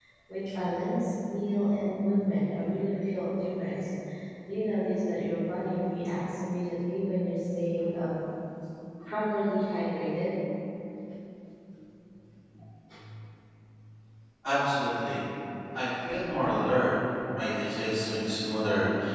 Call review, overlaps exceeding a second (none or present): none